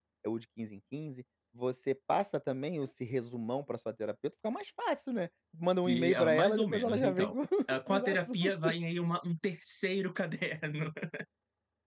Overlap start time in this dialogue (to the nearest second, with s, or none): 6 s